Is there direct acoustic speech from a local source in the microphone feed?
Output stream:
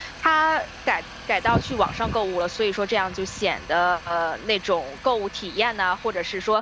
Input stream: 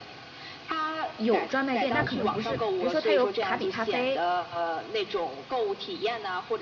Yes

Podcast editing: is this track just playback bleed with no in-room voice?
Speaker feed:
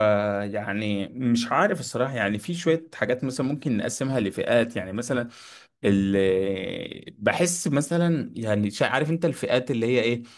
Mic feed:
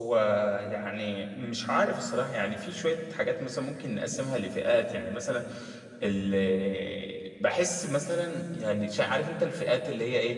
Yes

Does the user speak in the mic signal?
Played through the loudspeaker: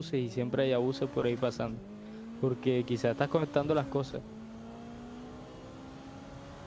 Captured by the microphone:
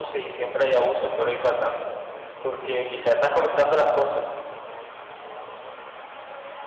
No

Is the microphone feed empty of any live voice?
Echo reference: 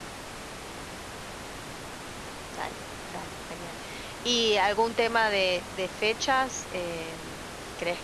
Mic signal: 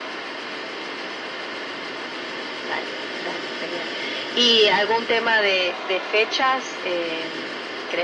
Yes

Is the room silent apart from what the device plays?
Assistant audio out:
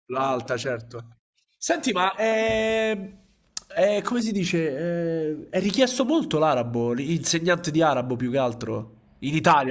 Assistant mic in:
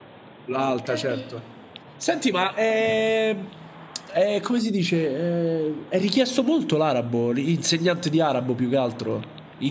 No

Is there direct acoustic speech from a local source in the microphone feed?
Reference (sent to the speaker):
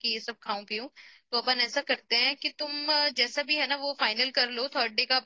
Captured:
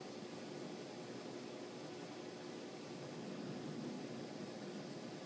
No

